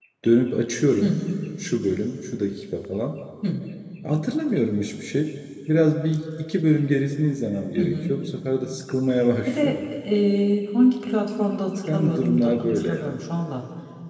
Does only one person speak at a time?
No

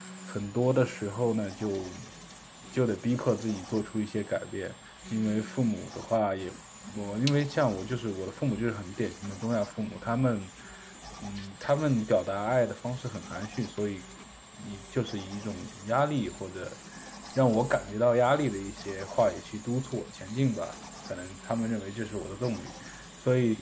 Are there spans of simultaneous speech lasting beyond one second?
No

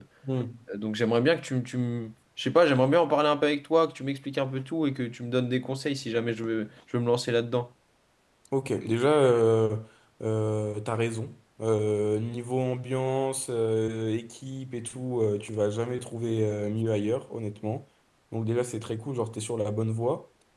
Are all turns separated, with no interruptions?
Yes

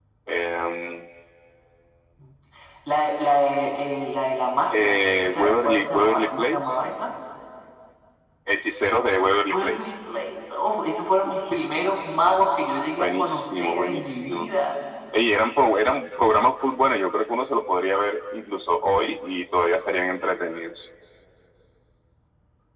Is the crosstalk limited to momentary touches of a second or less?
No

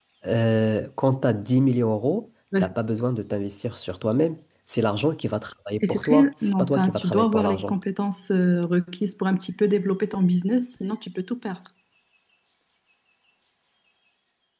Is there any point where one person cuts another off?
Yes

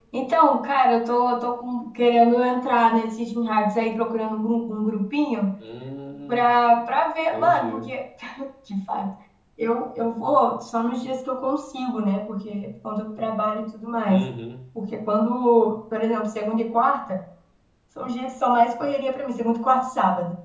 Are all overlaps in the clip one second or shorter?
Yes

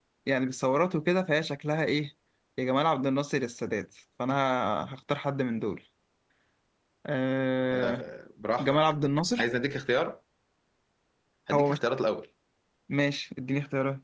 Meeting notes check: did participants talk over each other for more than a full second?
No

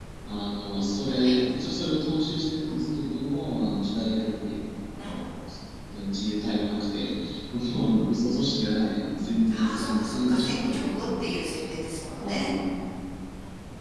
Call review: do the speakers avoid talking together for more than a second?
No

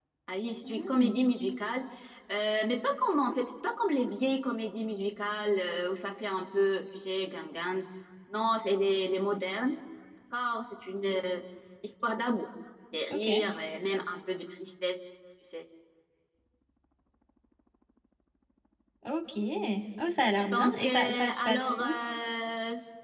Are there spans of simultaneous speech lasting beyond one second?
Yes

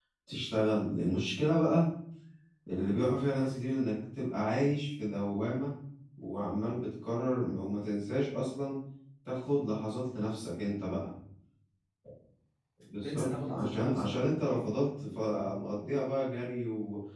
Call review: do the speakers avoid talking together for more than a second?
No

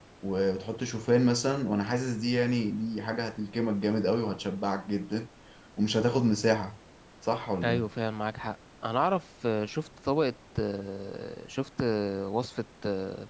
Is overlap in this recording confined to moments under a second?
Yes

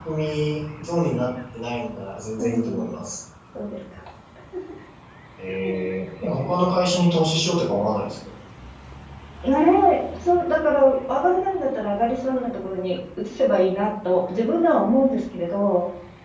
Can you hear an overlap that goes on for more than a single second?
No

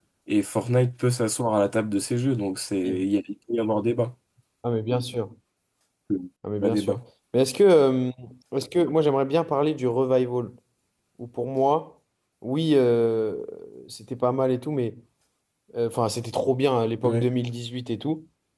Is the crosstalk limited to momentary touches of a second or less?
Yes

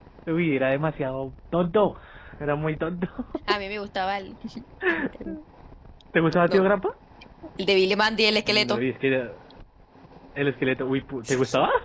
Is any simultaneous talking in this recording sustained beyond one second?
No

